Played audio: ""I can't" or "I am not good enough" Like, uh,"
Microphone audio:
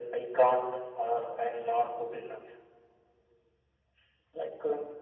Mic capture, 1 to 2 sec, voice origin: echo only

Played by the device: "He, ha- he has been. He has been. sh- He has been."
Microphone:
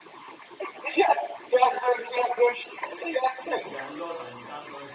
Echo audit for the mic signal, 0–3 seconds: echo only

